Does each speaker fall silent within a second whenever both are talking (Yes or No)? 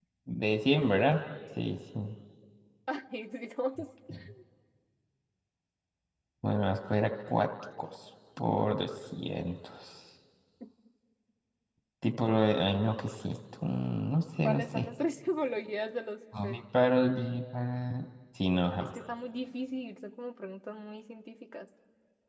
Yes